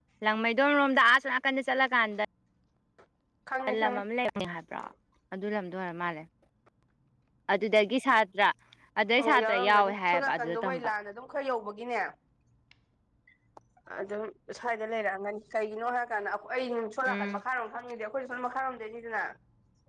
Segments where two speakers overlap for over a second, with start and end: 9.2-10.9

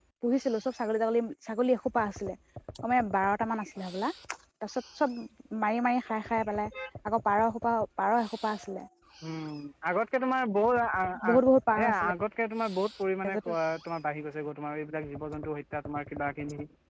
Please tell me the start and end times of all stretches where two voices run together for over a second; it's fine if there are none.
none

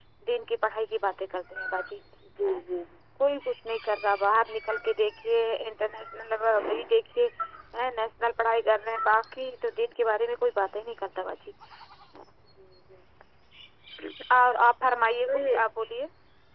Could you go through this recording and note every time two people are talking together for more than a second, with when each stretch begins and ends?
none

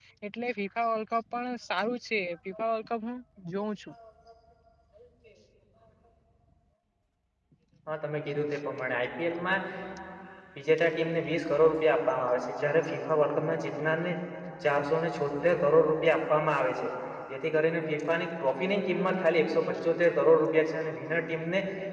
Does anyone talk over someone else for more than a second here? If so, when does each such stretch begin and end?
none

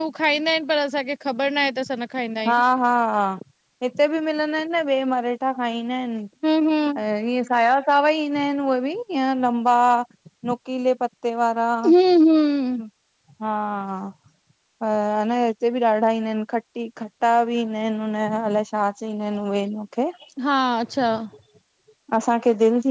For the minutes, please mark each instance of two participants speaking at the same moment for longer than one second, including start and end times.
none

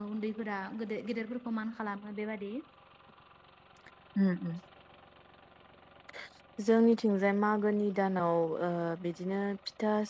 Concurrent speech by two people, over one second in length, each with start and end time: none

